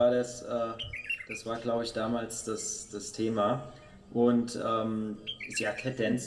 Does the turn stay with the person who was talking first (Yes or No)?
Yes